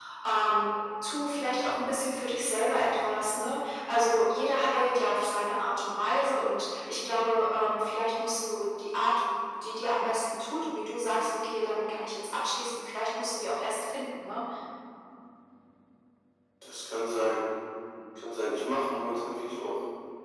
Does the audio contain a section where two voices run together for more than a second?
No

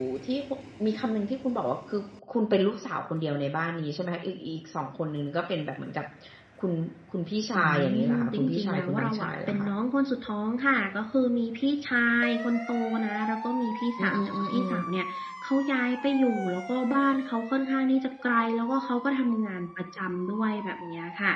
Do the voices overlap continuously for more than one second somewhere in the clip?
Yes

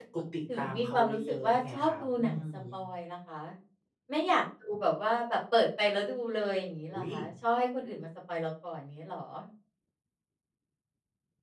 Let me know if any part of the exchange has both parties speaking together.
Yes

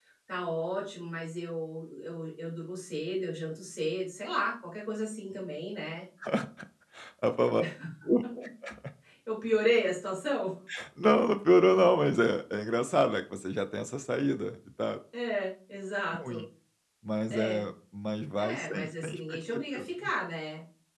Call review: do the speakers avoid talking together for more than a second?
No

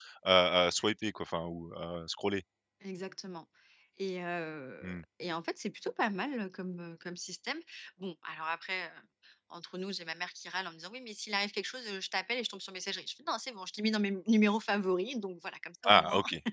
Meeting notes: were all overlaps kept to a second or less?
Yes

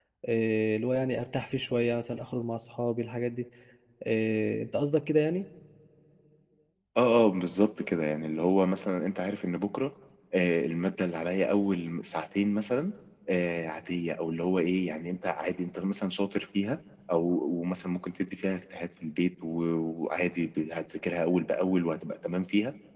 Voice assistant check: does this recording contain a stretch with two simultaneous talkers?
No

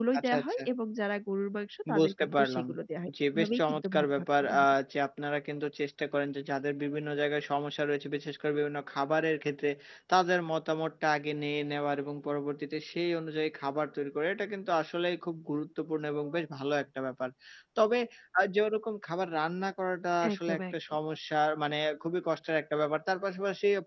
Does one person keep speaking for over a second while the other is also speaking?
Yes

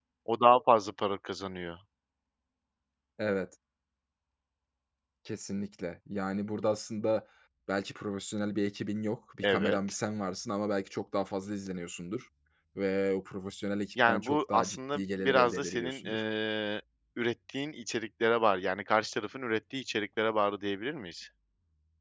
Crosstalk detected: Yes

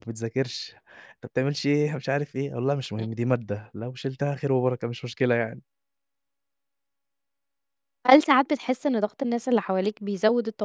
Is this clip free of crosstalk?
Yes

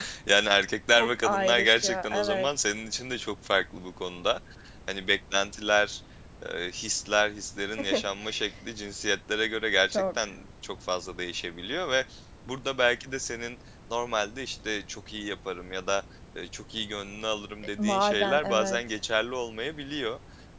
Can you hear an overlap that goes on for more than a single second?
Yes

